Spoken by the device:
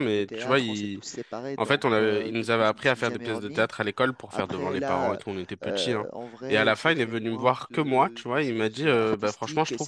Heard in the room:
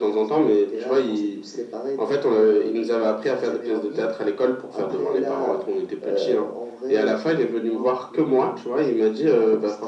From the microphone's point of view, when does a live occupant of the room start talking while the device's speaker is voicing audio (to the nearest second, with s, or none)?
none